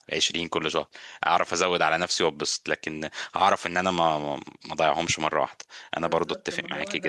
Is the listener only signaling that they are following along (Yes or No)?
No